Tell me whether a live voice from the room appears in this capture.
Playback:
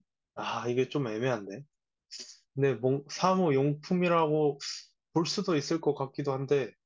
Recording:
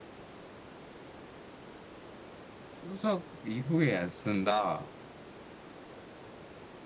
Yes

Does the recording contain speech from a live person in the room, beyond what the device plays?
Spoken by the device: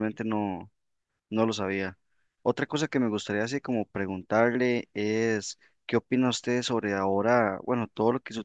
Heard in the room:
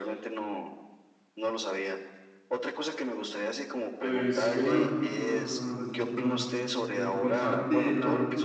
Yes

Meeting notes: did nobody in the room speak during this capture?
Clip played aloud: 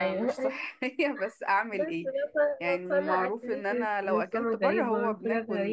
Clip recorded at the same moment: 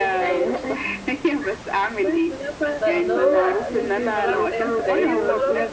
No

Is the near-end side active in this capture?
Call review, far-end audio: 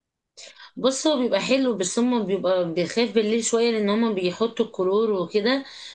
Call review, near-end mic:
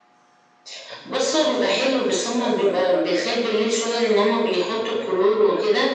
Yes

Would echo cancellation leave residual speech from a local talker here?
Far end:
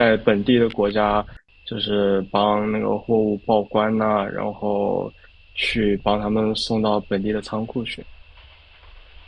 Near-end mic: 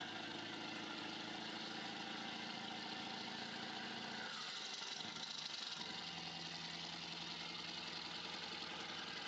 No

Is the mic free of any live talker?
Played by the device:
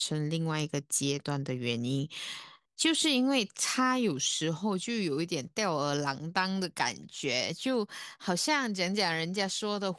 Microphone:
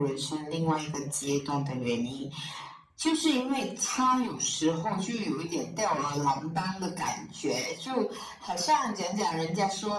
Yes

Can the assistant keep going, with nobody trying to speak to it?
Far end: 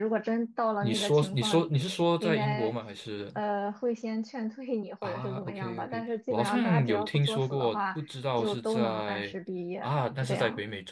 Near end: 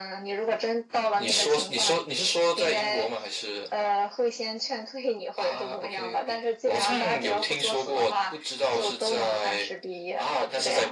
Yes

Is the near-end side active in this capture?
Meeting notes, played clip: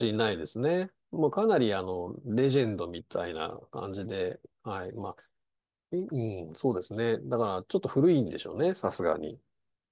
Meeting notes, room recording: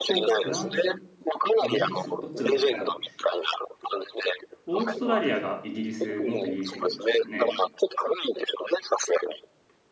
Yes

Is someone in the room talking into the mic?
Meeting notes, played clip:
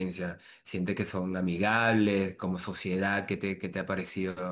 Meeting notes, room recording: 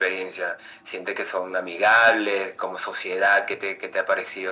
No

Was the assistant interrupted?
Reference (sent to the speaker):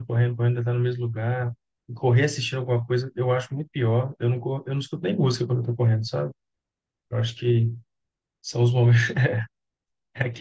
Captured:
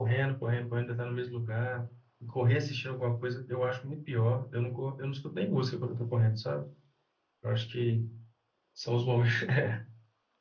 No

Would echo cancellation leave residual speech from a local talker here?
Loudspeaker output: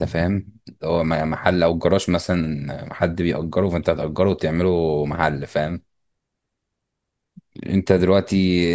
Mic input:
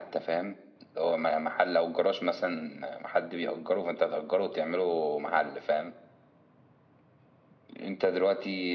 No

